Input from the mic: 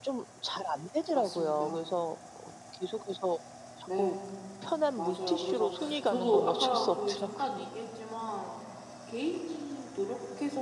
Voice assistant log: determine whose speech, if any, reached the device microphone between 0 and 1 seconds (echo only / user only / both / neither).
echo only